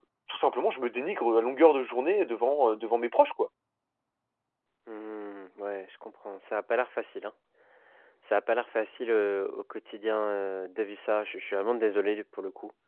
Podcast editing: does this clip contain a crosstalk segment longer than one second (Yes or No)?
No